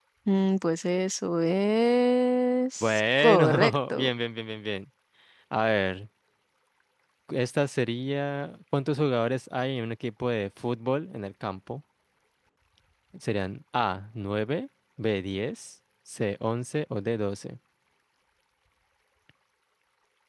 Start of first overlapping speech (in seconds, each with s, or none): 2.8 s